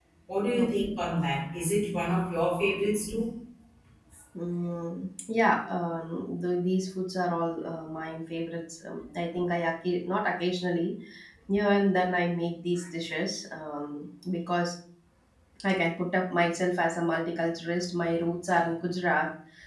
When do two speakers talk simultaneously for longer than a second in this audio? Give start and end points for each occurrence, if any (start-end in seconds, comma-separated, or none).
none